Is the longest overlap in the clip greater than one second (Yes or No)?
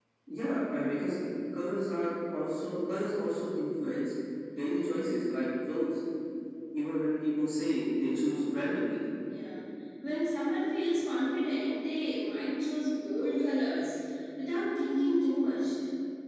No